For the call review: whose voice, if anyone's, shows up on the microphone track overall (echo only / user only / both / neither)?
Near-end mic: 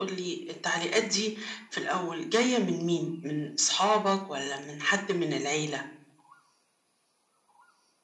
echo only